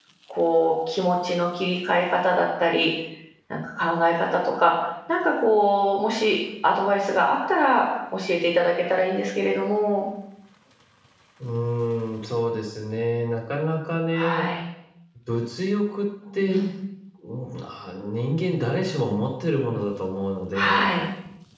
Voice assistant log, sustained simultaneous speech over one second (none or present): none